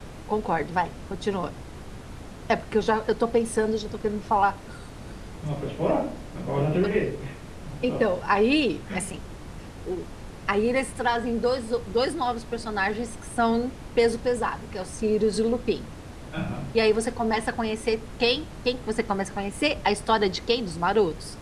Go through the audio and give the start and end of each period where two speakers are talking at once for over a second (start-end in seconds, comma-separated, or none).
none